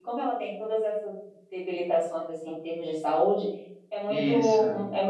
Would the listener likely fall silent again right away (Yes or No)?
Yes